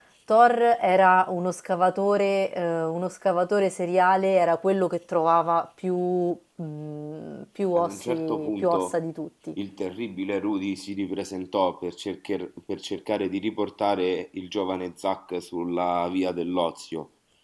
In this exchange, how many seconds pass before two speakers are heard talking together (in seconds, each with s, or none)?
7.7 s